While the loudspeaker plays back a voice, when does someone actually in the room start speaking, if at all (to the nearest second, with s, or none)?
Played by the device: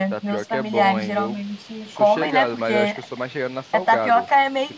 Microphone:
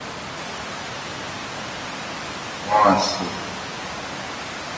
3 s